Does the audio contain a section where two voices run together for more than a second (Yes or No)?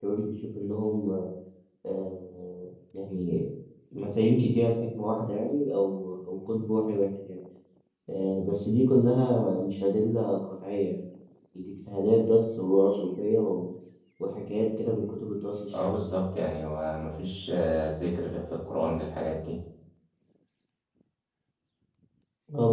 No